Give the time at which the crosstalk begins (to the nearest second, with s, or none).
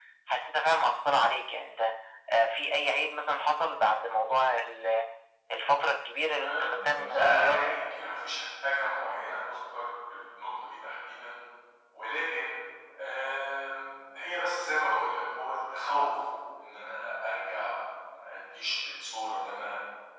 6 s